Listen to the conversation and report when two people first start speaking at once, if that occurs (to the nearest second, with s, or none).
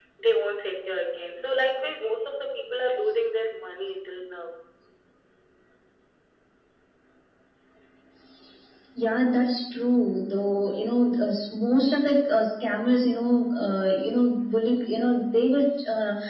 none